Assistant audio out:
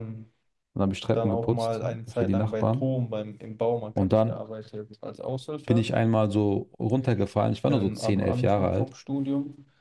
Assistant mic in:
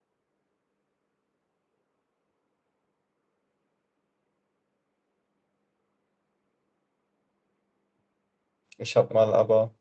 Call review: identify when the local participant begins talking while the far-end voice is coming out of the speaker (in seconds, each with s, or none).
8.8 s